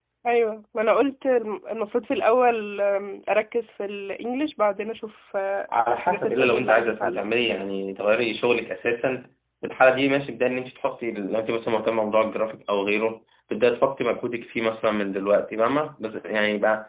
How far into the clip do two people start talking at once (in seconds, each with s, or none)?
5.7 s